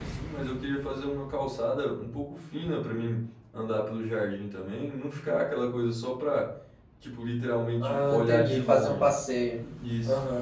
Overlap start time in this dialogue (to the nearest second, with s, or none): 8 s